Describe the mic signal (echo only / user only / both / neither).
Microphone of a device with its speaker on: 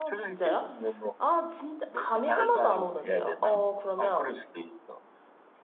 both